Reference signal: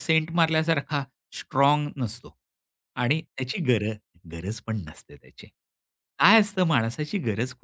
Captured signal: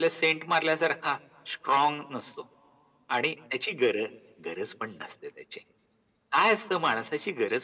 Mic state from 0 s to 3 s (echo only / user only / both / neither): echo only